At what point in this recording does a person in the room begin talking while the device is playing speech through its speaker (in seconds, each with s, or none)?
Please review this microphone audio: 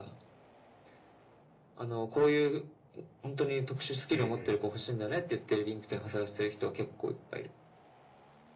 4.1 s